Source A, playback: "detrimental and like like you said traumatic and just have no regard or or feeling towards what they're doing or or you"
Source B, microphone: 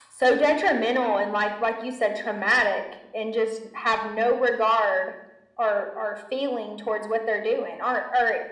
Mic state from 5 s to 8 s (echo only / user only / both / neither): echo only